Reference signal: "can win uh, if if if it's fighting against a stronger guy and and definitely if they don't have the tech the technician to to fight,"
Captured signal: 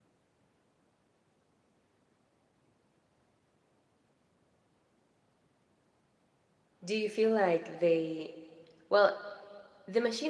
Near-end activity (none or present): present